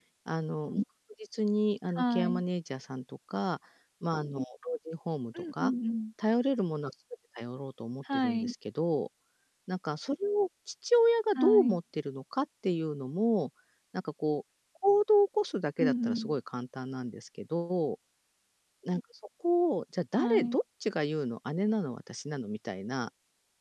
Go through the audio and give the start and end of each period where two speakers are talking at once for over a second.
none

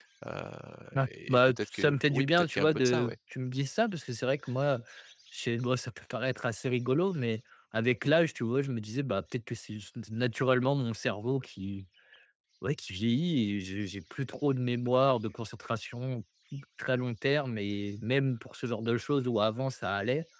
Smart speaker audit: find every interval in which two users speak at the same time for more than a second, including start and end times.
1.0-3.1

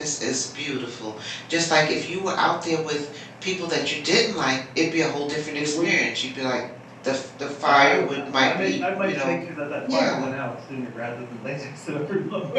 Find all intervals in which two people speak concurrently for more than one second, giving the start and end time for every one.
7.6-9.4

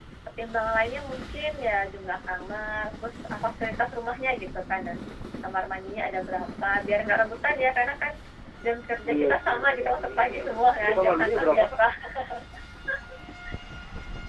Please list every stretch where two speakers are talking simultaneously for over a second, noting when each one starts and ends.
9.1-11.7

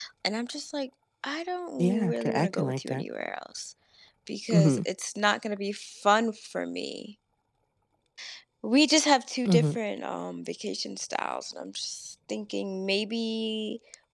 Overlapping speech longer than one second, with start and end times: 1.8-3.0

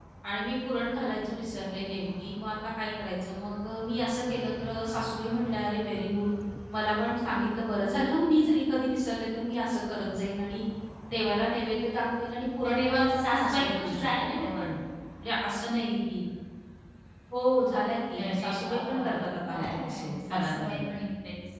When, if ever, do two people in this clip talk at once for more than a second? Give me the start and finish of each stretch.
12.7-14.6, 18.2-20.8

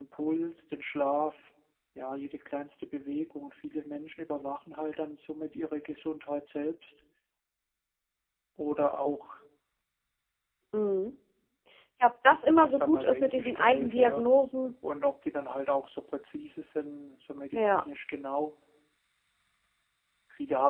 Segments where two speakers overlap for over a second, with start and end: 12.6-14.2

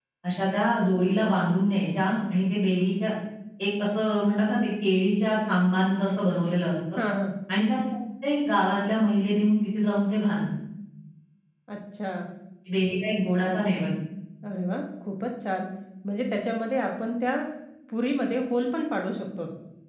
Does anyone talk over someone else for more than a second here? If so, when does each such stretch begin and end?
none

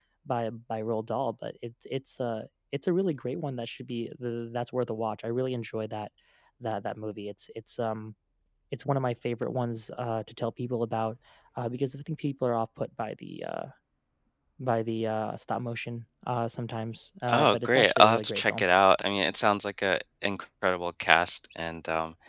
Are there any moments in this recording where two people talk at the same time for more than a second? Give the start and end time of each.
17.3-18.6

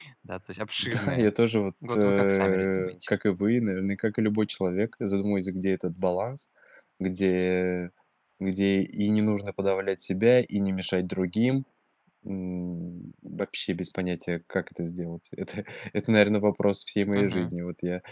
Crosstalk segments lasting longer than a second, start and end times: 1.9-3.2

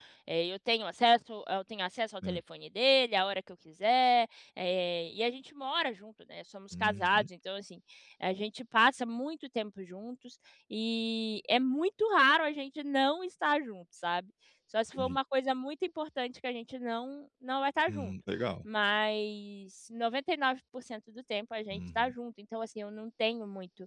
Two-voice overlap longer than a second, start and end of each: none

